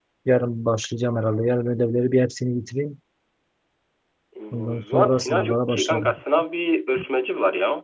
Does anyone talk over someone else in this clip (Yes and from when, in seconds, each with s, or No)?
Yes, from 4.8 s